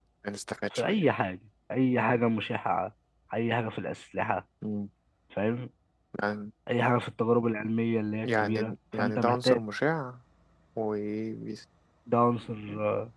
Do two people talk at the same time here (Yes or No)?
Yes